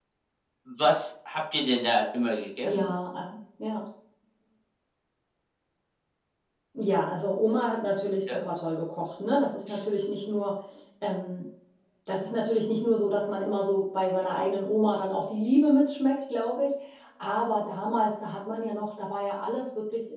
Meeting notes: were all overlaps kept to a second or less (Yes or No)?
Yes